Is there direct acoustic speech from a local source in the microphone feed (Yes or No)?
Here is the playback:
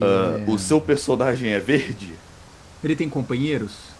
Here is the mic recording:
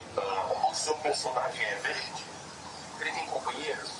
No